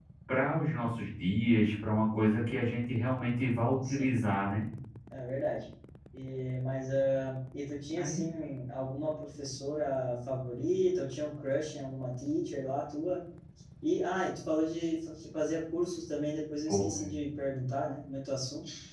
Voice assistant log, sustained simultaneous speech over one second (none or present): none